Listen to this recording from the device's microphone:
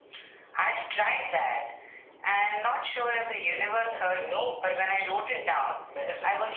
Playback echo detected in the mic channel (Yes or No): Yes